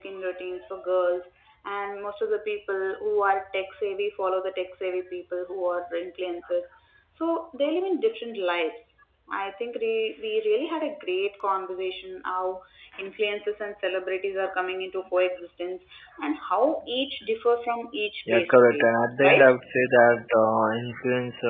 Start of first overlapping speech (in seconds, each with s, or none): 18.2 s